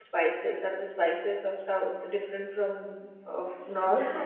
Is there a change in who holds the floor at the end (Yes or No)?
Yes